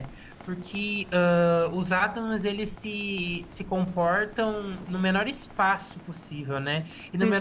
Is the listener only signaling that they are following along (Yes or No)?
Yes